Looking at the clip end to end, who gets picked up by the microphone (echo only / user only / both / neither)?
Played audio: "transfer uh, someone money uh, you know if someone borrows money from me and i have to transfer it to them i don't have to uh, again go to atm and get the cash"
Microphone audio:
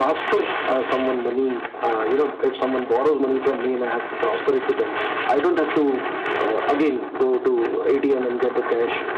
echo only